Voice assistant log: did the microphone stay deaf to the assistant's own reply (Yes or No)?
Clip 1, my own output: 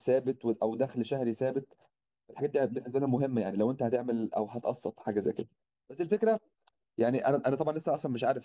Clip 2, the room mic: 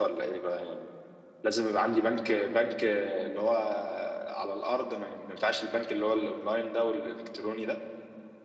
Yes